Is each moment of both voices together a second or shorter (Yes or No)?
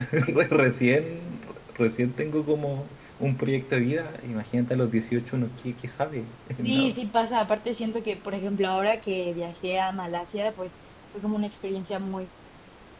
Yes